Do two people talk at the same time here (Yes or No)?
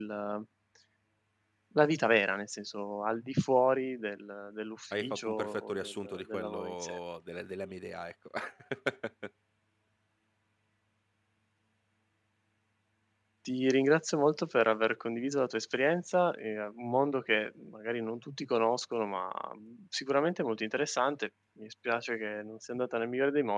Yes